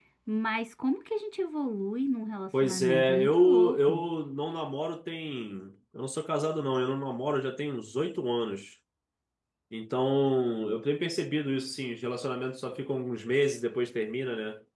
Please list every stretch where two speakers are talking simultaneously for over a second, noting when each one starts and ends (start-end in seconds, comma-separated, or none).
2.6-4.0